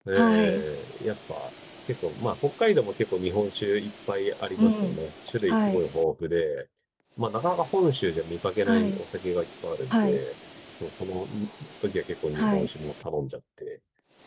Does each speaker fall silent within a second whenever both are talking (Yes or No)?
Yes